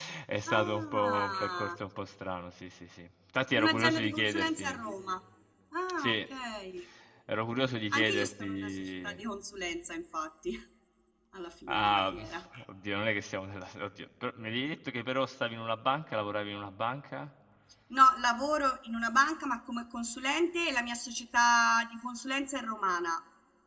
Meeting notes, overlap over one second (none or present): present